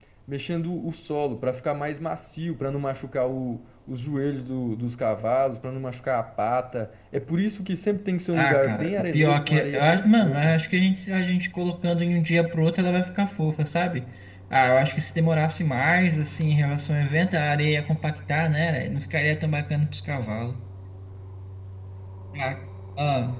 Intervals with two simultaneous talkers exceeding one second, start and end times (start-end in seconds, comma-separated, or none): 8.3-10.5